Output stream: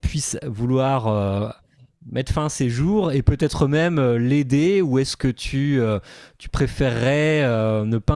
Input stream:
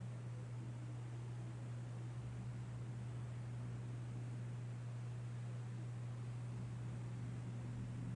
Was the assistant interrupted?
No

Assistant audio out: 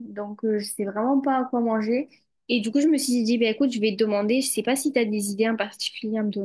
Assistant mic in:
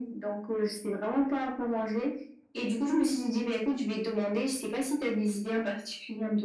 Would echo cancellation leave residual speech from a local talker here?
No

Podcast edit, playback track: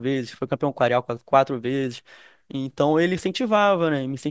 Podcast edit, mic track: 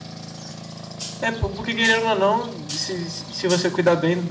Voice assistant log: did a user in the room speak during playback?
Yes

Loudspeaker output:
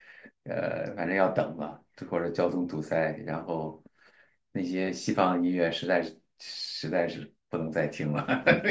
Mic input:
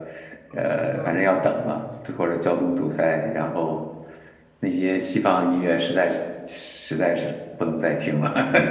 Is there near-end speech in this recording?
Yes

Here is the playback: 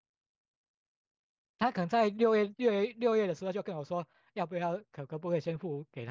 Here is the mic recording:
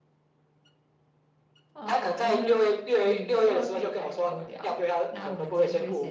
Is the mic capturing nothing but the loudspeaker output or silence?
No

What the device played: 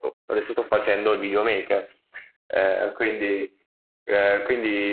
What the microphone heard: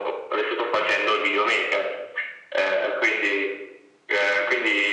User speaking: No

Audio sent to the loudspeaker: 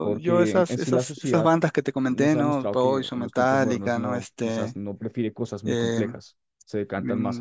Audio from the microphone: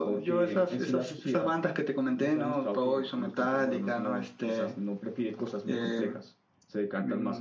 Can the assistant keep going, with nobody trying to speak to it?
Yes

